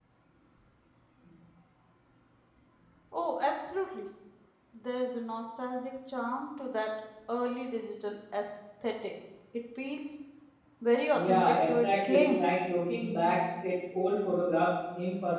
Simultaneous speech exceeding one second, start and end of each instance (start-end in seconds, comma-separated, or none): 11.1-12.4